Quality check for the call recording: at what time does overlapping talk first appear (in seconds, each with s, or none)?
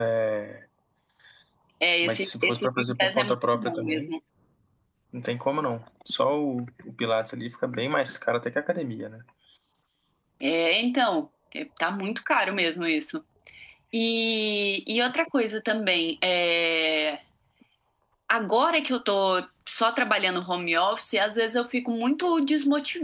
2.0 s